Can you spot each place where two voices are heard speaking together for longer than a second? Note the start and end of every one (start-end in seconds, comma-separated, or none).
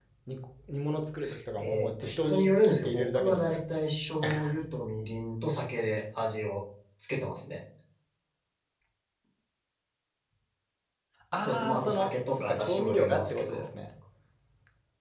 1.6-3.6, 11.4-13.7